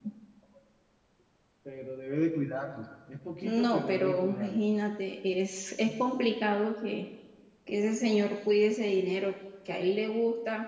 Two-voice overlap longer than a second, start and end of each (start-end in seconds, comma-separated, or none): 3.4-4.6